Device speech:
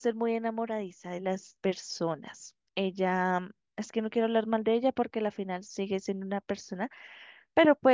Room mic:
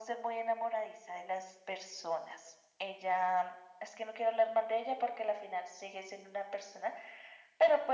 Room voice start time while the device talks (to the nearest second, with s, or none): none